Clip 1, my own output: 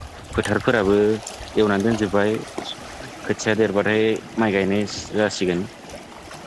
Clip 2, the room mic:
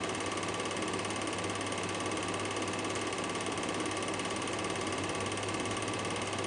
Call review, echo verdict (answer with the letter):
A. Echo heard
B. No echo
B